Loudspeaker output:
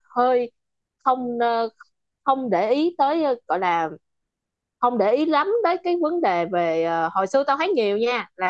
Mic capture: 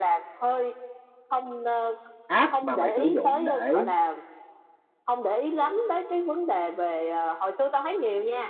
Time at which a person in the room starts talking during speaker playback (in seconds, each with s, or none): 2.3 s